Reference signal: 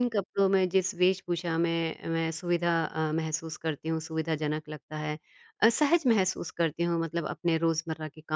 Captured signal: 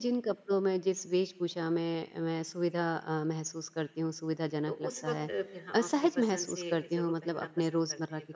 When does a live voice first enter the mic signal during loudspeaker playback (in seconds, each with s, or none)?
4.7 s